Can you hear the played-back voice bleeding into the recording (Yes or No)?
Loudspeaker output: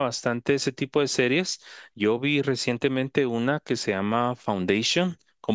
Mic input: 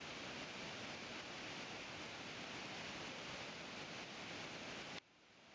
No